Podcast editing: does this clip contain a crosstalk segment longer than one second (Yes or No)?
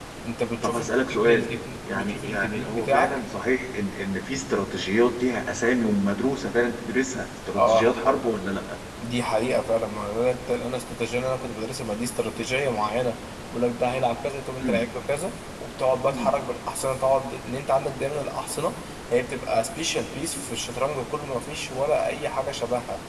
Yes